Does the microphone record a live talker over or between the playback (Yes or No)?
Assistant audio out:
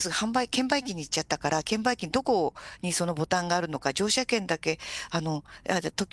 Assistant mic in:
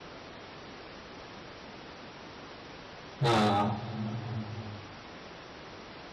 Yes